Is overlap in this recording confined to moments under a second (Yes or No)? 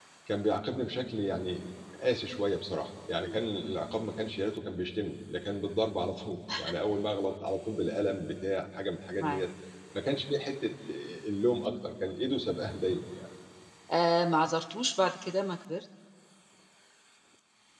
Yes